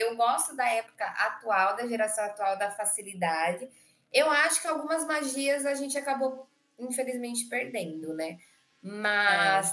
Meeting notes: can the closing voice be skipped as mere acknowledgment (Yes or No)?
Yes